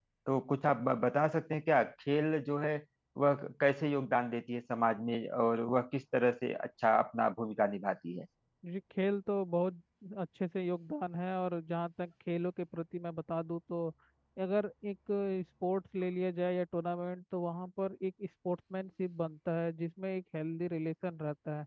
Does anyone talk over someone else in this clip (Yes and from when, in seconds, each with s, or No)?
No